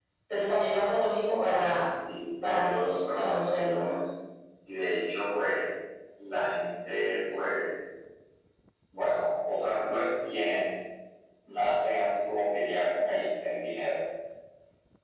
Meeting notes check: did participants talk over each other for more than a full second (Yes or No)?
Yes